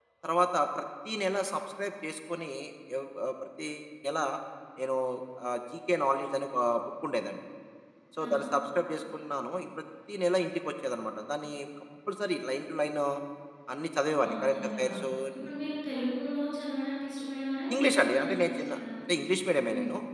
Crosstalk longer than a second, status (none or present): present